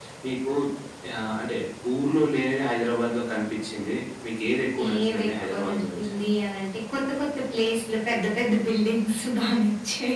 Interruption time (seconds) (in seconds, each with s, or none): 4.8 s